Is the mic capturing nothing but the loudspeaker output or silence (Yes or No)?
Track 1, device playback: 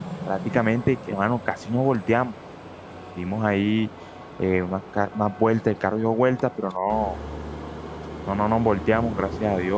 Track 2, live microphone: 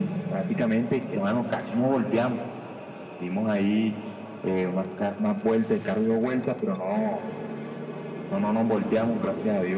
Yes